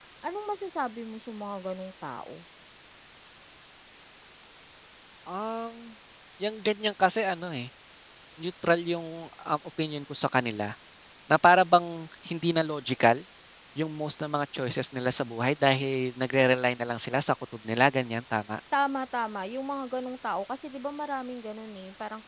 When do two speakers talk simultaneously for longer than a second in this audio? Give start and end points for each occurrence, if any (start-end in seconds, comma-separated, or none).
none